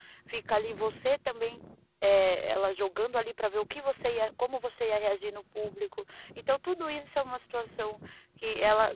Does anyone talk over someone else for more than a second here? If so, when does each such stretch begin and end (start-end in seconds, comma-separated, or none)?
none